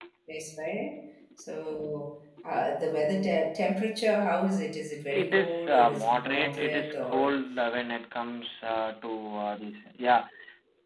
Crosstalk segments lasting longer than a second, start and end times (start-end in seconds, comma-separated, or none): 5.1-7.2